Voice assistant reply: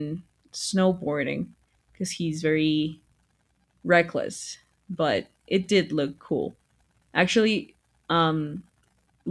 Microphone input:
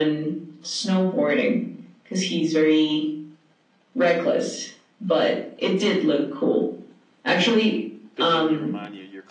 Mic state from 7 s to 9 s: both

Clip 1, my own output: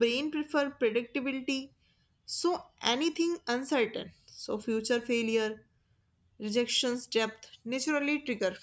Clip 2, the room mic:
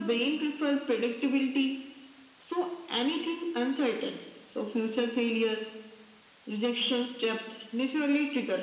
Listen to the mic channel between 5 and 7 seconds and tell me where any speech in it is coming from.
echo only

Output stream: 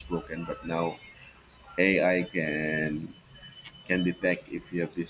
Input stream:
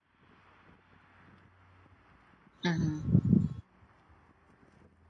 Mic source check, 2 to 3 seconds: user only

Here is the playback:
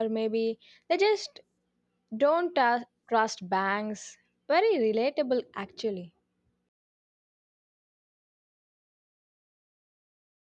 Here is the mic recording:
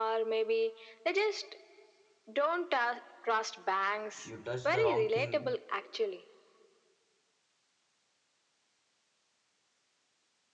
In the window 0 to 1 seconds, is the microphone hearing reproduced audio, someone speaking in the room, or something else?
echo only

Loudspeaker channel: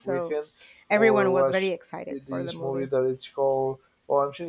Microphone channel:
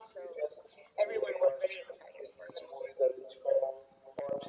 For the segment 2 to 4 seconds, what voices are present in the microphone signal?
echo only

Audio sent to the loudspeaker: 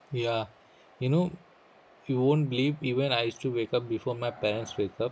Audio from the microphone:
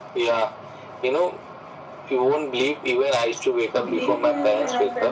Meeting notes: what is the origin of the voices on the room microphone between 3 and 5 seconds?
both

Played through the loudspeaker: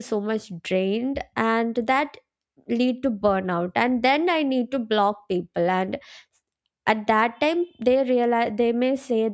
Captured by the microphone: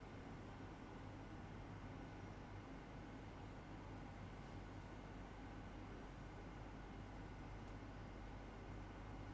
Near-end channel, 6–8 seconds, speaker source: neither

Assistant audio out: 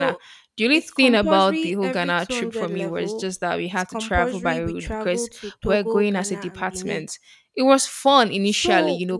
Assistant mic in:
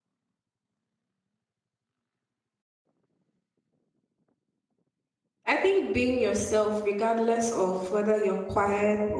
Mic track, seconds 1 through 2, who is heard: neither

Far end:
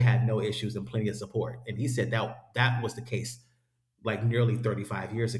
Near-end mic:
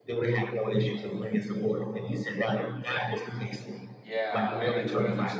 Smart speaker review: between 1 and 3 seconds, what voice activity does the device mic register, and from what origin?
echo only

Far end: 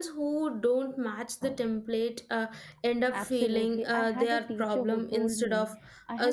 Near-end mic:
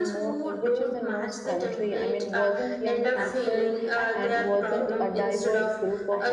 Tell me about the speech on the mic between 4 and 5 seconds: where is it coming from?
both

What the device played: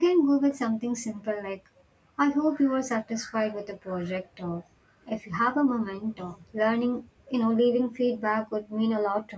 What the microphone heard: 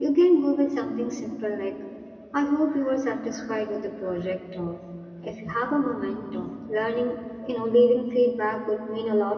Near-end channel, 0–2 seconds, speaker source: echo only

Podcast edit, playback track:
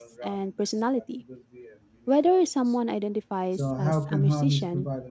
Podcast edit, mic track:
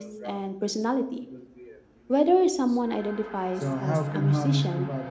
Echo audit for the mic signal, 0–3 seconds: echo only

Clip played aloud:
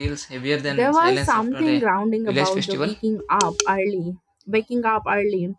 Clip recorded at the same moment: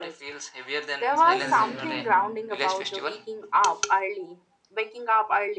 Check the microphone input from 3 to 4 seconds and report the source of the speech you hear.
echo only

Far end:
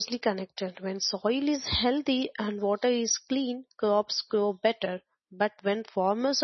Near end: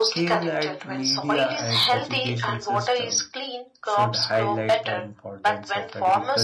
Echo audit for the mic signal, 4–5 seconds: both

